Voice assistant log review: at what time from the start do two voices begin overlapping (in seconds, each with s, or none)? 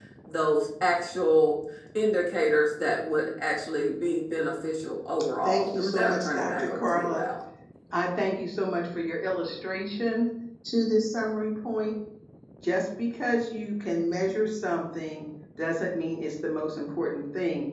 5.4 s